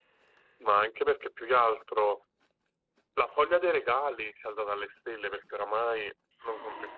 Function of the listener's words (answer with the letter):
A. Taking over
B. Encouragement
B